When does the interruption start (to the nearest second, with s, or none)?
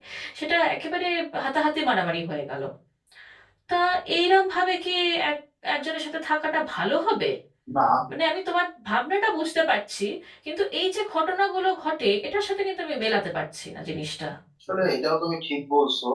none